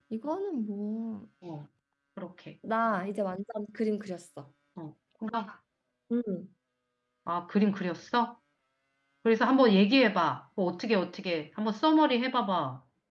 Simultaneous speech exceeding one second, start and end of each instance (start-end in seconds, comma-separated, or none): none